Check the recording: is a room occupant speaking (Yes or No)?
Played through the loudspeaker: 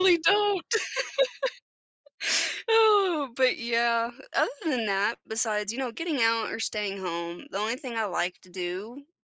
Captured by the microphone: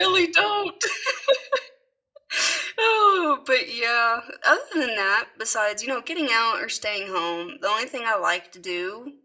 No